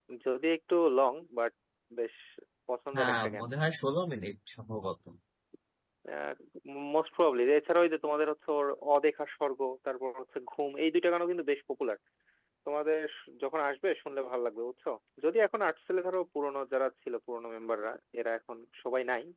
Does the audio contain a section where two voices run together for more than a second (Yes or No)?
No